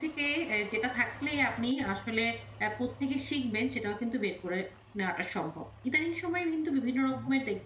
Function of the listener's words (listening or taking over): listening